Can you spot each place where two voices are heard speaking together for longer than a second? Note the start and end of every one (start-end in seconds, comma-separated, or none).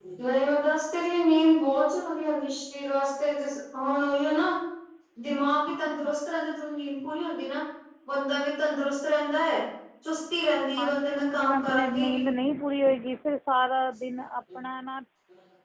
10.8-12.2